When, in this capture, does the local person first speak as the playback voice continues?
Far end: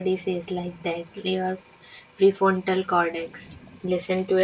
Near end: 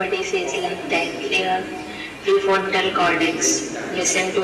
0.4 s

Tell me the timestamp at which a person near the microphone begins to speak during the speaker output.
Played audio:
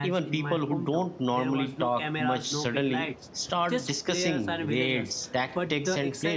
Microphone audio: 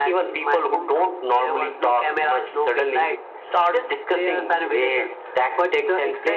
none

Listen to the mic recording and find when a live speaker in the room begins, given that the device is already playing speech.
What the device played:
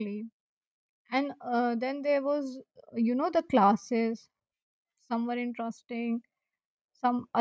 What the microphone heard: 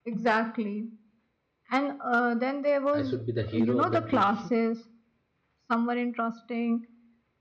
3.0 s

